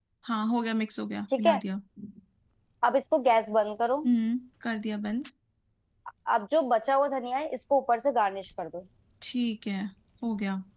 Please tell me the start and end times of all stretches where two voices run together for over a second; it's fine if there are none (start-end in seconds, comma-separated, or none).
none